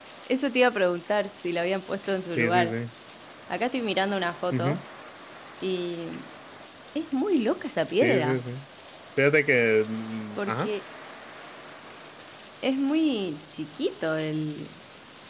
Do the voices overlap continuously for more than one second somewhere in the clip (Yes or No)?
No